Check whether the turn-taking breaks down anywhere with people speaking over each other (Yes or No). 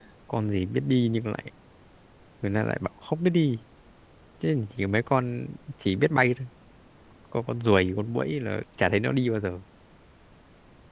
No